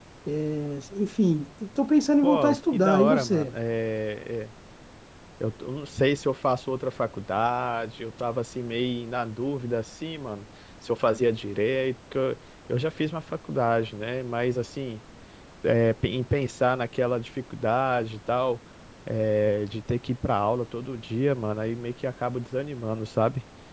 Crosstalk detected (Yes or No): Yes